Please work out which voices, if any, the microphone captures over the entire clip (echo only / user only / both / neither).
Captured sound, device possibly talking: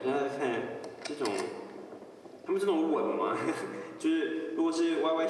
echo only